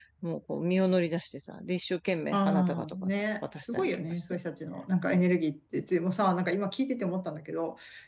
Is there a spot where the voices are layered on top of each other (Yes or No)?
Yes